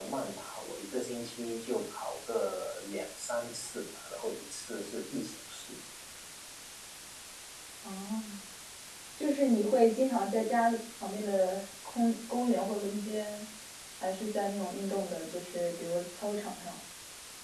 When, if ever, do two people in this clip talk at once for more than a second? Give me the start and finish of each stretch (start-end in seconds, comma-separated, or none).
none